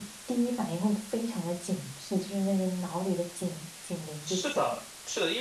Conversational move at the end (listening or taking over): taking over